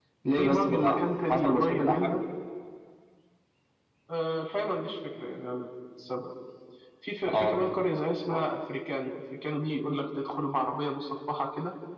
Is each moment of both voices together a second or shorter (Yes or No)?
No